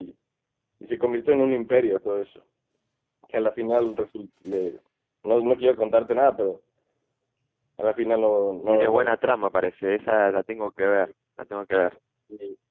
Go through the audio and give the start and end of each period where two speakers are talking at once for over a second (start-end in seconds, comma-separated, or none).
none